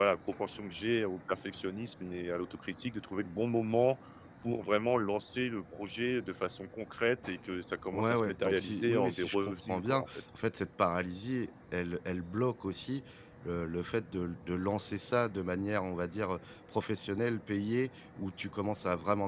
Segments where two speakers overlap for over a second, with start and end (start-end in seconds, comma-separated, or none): 7.9-10.1